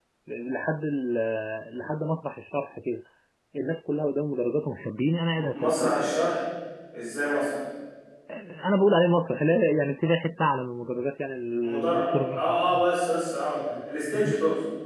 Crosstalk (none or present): present